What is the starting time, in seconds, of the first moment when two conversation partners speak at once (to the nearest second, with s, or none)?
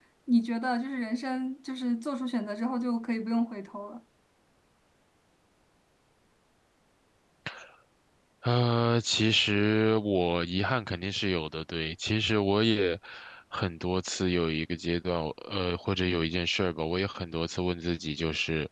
none